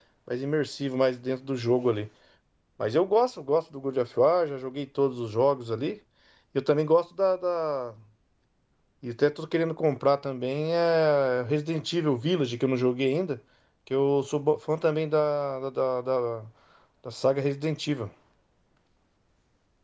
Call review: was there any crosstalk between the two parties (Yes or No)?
No